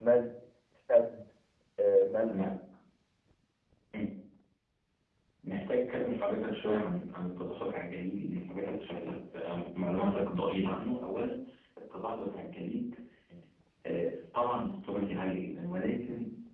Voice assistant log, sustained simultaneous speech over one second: none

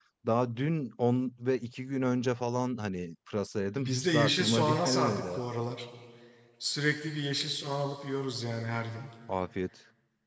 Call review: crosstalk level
present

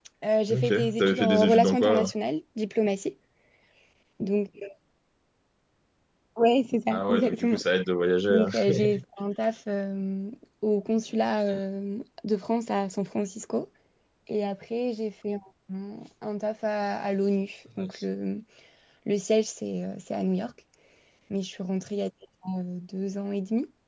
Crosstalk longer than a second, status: present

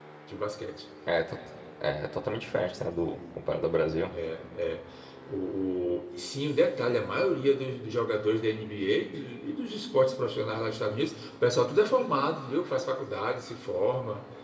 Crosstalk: none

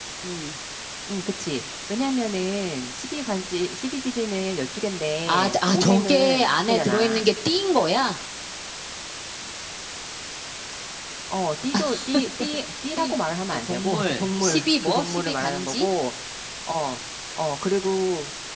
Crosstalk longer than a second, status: present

